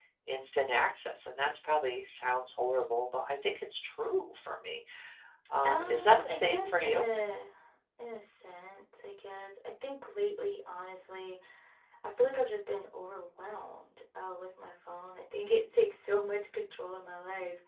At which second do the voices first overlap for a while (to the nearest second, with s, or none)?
6 s